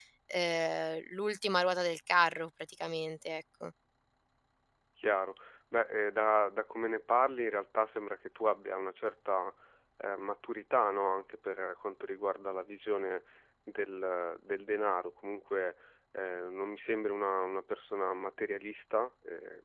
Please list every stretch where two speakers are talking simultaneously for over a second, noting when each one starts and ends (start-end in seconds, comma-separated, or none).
none